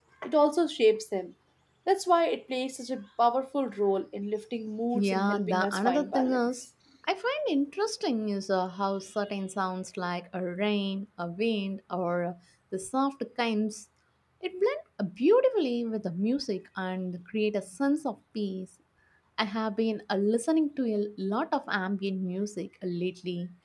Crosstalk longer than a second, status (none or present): present